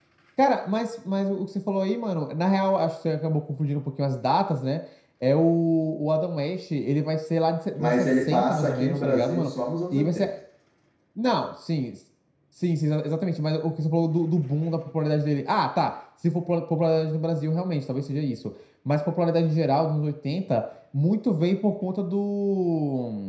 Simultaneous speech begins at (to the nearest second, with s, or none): 8 s